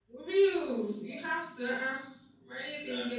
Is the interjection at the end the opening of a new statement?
No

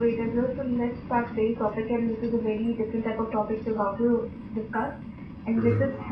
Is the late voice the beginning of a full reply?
No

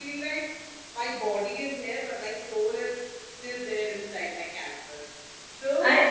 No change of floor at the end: Yes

